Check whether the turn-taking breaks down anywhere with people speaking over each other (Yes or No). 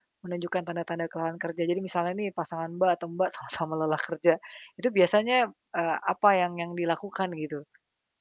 No